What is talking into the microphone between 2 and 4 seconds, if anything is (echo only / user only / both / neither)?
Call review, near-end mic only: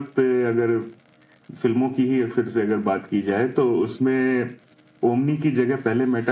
echo only